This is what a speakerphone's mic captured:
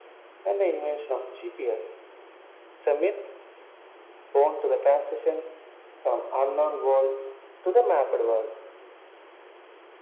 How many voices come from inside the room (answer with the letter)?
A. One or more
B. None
B